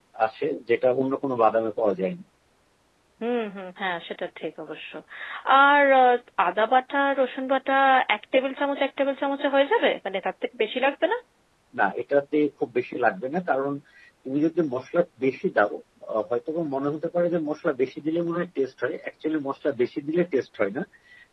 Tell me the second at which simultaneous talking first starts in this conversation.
none

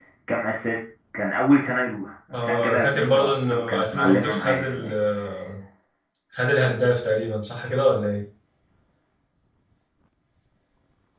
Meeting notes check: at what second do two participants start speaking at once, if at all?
2.3 s

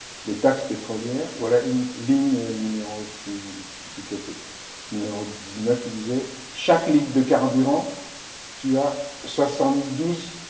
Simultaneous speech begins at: none

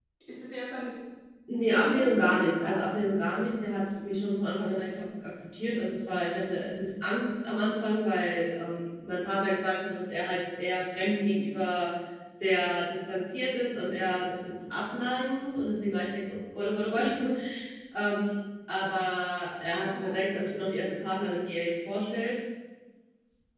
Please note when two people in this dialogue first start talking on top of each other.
1.7 s

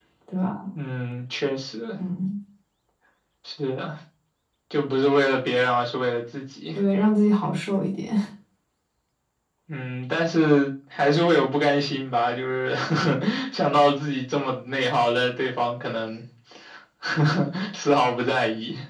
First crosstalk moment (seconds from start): none

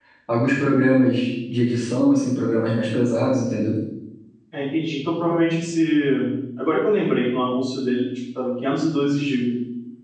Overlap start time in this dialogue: none

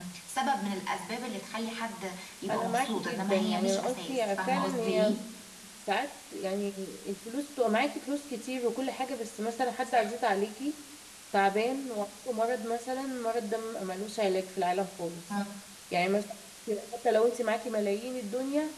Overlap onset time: 2.5 s

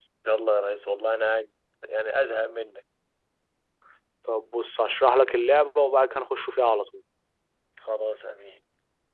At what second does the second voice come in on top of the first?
none

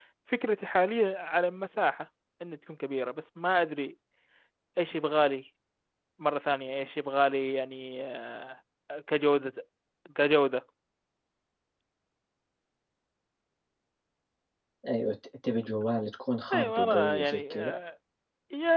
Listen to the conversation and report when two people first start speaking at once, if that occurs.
16.5 s

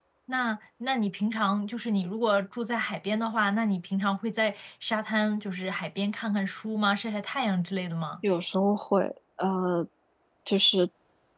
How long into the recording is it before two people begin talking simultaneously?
none

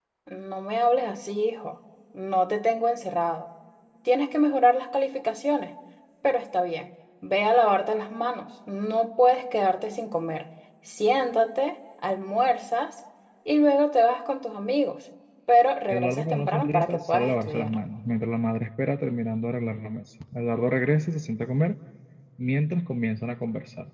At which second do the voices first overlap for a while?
15.9 s

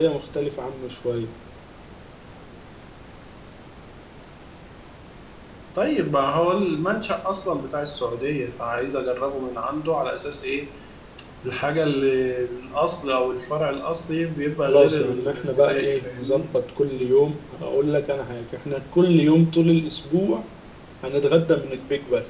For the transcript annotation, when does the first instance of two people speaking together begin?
14.7 s

